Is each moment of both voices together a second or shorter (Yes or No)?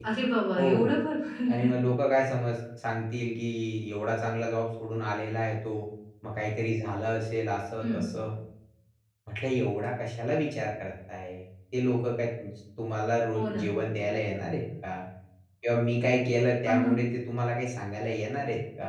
Yes